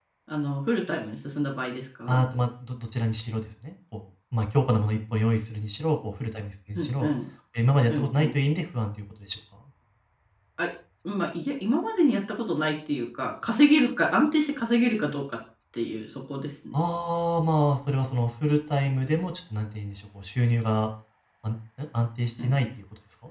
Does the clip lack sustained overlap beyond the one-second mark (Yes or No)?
Yes